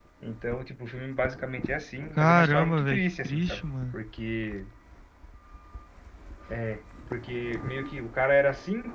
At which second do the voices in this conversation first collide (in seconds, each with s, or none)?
2.2 s